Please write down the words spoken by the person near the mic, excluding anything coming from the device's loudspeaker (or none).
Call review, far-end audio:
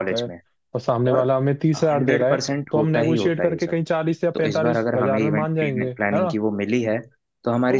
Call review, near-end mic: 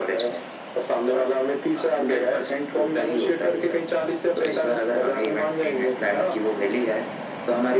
none